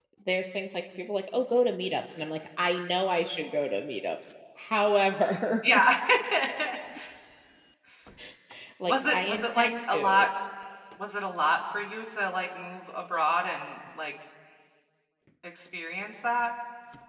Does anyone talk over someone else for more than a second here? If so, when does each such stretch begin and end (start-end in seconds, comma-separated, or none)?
8.8-10.2